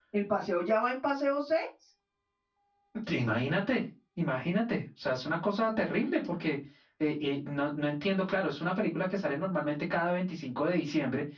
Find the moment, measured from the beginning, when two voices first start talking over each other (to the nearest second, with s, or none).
none